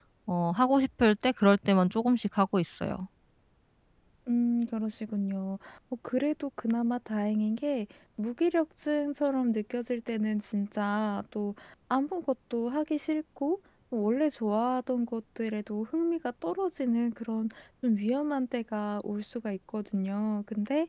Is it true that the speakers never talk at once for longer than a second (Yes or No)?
Yes